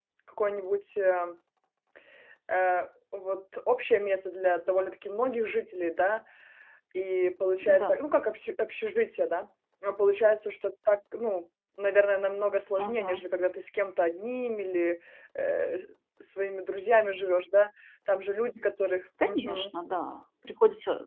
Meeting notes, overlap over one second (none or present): none